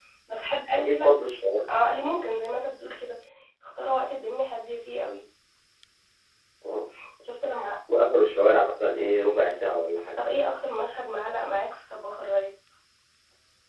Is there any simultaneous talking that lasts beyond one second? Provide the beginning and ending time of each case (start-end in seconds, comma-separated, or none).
none